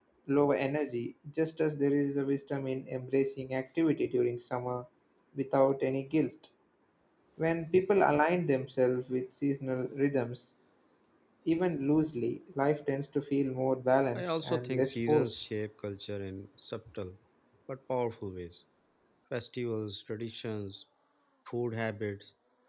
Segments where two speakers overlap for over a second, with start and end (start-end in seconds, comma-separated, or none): 14.2-15.3